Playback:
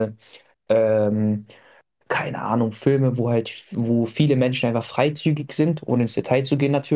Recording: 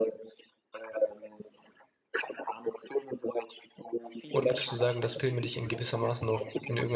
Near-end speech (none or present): present